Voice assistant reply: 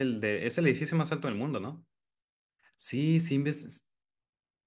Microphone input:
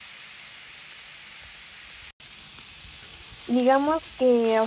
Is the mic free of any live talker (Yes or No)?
No